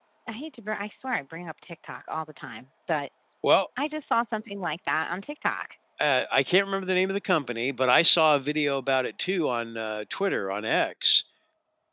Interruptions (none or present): none